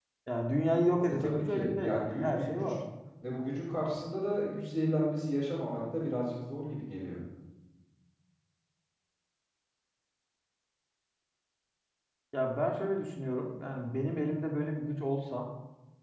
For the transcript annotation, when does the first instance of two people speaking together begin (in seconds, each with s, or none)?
1.1 s